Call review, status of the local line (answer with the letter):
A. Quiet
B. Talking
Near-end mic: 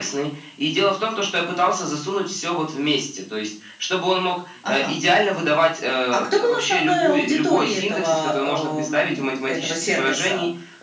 A